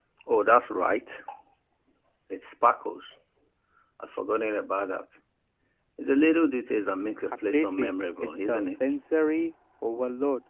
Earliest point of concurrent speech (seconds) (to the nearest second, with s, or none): 7 s